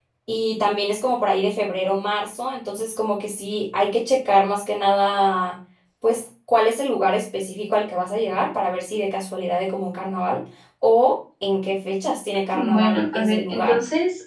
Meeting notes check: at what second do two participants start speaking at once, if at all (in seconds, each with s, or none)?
12.5 s